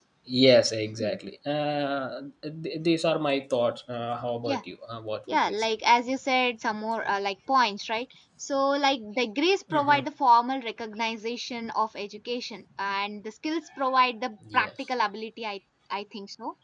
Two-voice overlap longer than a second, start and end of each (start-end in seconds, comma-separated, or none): none